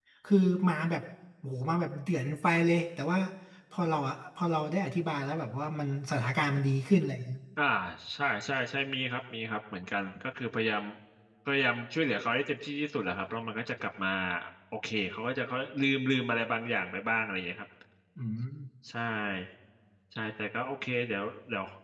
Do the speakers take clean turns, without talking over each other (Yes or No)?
Yes